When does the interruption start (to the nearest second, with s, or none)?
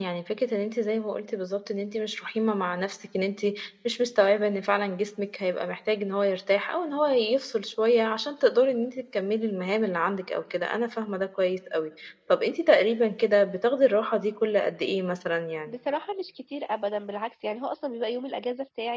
none